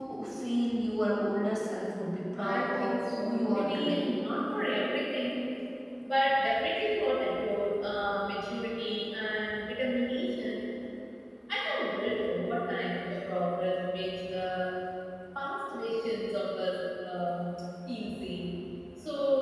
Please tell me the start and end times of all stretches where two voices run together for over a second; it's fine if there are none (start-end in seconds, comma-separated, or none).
2.4-4.0